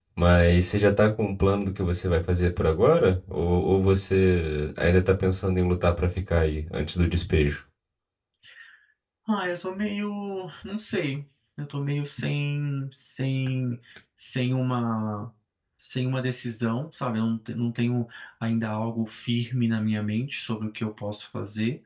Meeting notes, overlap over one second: none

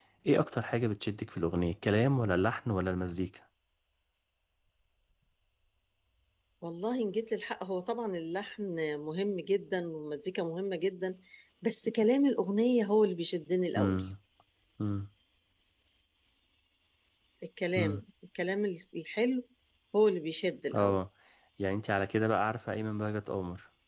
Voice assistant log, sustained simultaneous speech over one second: none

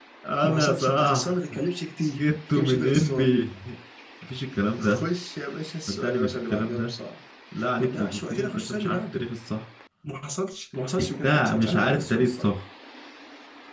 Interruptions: present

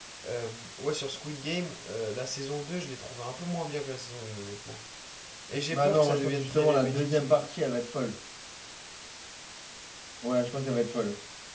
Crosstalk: present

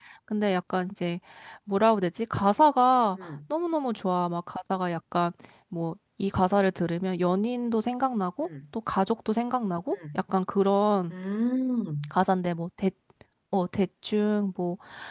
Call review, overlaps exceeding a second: none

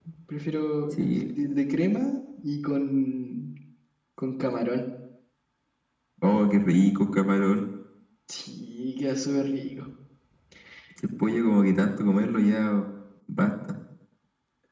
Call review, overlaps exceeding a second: none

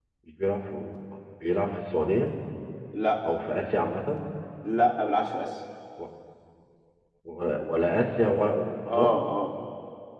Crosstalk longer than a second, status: none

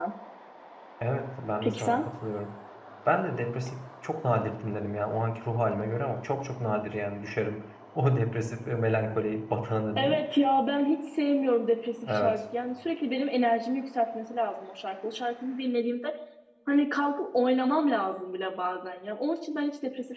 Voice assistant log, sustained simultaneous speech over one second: none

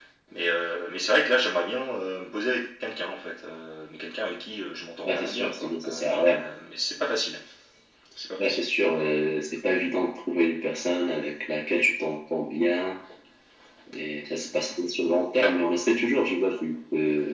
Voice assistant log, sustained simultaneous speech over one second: present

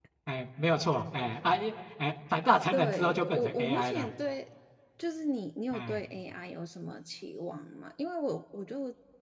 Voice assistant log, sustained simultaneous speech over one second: present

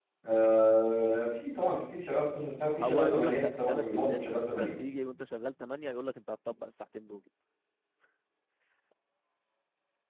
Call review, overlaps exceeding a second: present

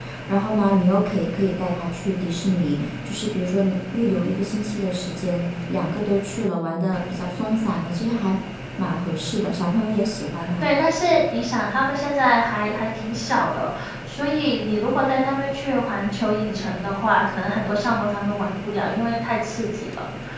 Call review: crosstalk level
none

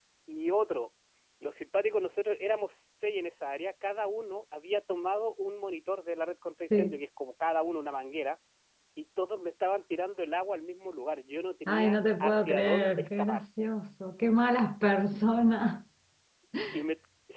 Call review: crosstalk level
present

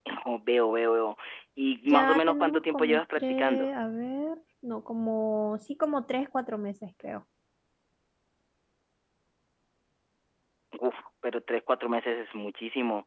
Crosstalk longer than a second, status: present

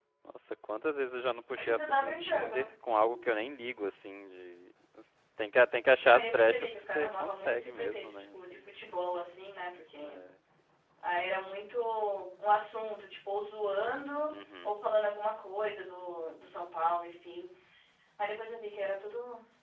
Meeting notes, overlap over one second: present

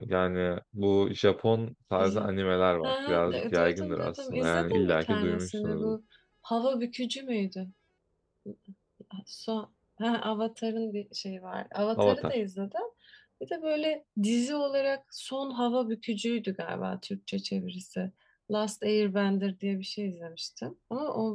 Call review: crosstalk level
present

